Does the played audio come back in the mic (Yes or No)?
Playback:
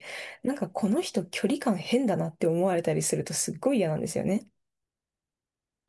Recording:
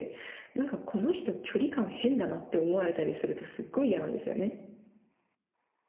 Yes